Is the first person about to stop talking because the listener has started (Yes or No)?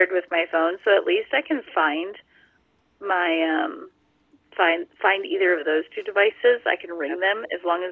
No